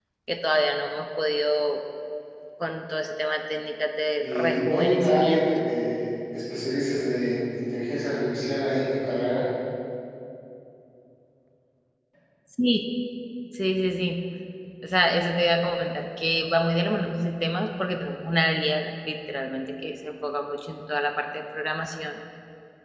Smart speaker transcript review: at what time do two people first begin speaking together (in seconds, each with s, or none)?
4.2 s